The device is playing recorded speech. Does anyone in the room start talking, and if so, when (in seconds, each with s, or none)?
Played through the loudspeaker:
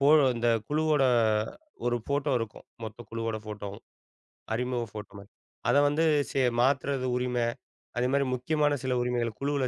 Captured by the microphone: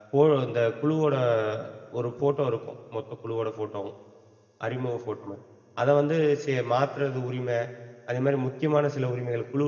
none